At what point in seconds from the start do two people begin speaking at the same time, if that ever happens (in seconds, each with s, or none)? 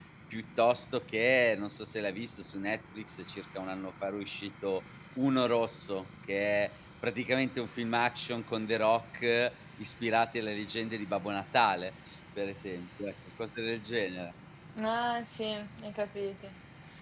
none